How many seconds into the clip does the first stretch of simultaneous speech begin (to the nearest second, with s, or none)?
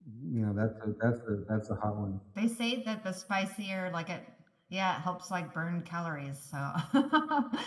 none